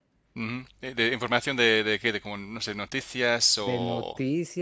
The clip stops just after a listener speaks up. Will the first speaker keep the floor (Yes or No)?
No